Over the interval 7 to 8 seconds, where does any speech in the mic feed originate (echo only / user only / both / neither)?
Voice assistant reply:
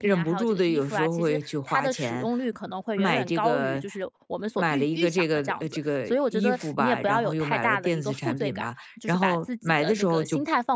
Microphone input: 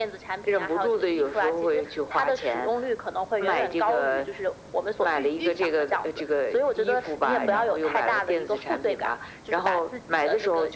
both